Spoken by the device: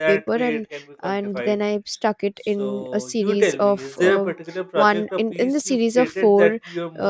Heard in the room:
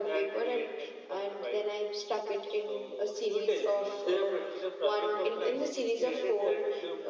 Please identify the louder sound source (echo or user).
echo